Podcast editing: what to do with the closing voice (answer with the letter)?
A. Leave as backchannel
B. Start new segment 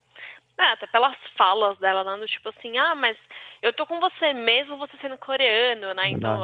A